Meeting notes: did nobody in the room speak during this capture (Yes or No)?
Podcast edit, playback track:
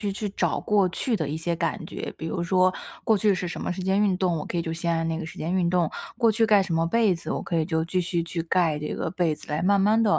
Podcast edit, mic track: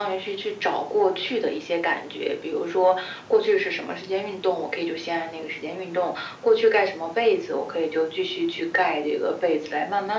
Yes